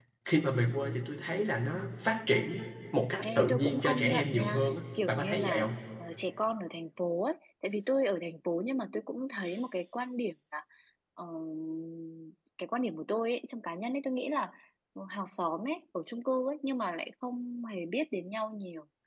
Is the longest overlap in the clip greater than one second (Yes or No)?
Yes